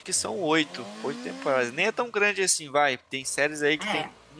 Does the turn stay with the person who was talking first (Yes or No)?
Yes